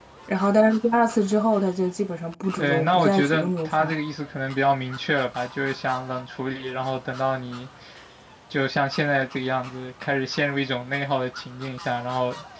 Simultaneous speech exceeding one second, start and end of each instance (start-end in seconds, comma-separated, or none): 2.6-3.9